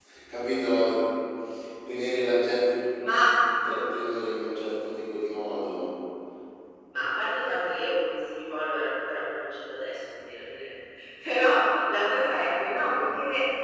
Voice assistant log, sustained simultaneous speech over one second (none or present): none